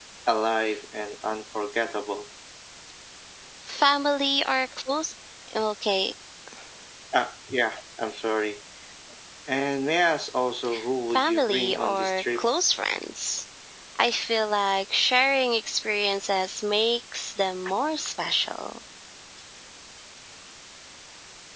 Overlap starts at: 11 s

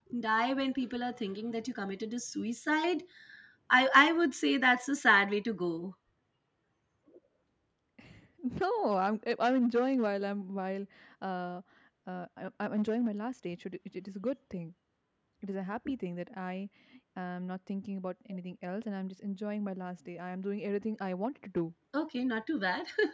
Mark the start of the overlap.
none

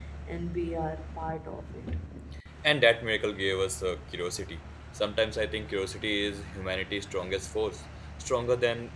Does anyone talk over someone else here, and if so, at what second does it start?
none

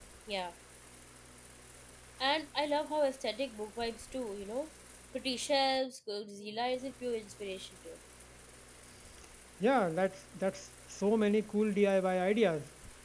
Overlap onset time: none

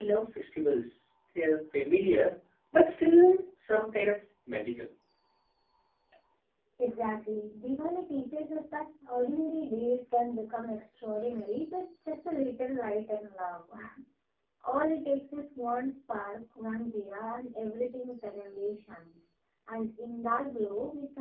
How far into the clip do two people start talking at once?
none

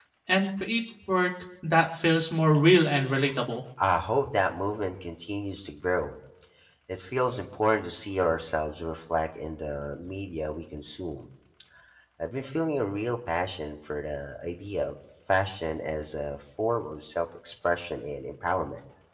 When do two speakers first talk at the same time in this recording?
none

